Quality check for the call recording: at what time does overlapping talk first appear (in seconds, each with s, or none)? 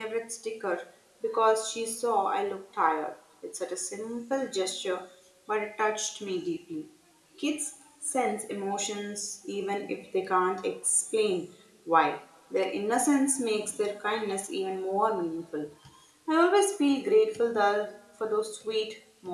none